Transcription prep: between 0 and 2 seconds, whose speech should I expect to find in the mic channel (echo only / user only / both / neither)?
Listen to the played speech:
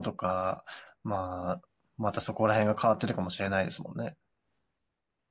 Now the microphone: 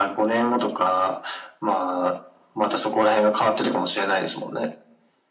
echo only